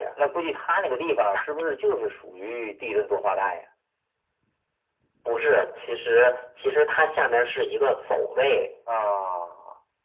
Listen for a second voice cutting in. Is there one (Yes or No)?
No